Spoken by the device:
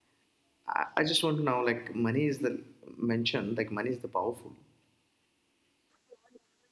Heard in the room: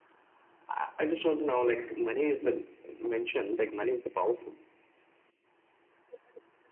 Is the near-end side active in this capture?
No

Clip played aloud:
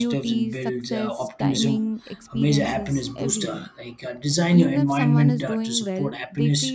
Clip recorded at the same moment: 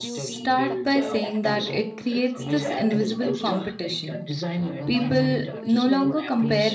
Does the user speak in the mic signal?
Yes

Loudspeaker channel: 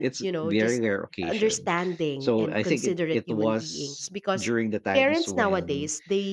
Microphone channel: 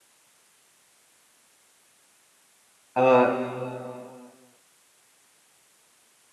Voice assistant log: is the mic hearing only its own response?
No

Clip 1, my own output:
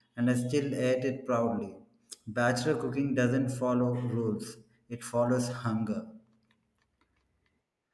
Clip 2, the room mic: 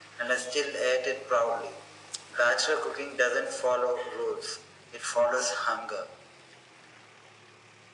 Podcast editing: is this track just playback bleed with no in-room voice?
Yes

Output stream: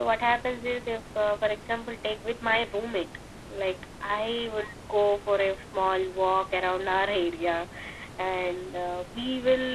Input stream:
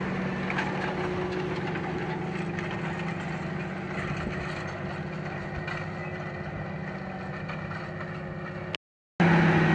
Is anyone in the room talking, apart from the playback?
No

